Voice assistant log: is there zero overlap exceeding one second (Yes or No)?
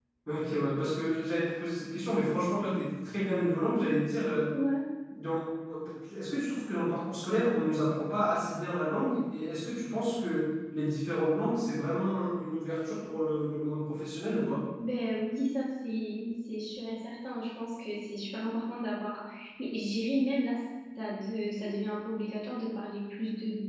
Yes